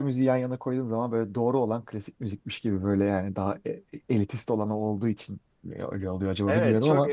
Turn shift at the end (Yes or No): Yes